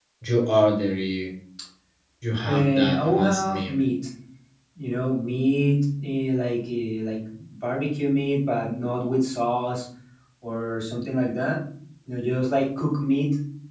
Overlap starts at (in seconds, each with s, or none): 2.4 s